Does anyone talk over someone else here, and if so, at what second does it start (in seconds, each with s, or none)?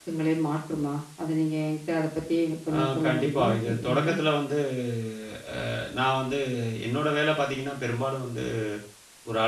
2.7 s